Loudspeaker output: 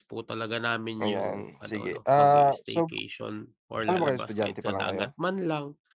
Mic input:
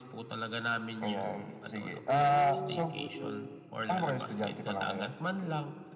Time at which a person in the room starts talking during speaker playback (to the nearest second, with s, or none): 2 s